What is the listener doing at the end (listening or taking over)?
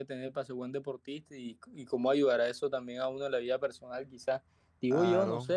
listening